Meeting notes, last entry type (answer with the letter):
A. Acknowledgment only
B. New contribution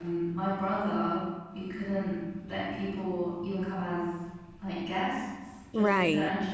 A